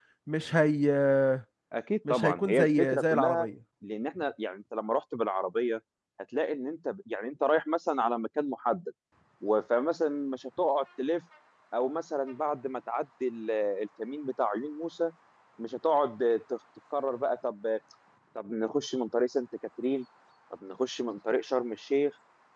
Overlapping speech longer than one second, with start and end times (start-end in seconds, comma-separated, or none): 2.1-3.5